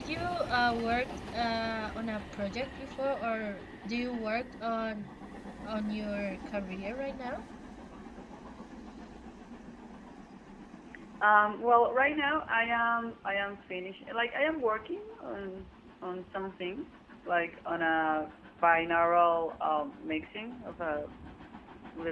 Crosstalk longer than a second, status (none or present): none